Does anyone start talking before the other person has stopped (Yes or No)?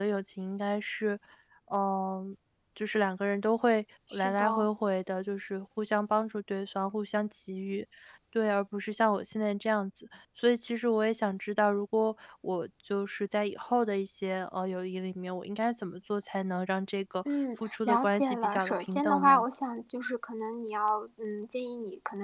Yes